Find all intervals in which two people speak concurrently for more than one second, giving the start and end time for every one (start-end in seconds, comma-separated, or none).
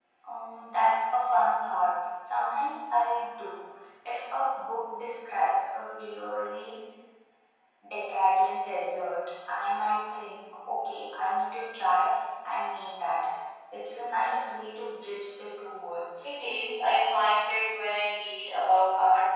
none